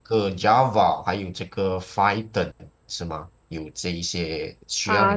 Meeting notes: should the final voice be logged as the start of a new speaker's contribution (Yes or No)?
Yes